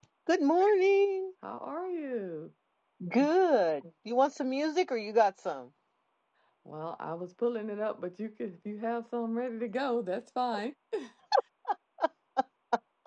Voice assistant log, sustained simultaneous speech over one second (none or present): none